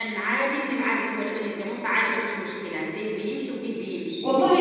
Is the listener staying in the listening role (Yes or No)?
No